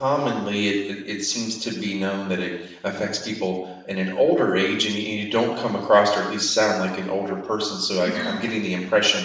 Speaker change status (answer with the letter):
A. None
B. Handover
A